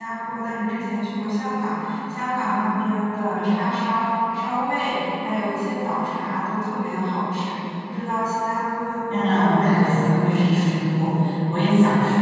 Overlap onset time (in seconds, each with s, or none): 9.3 s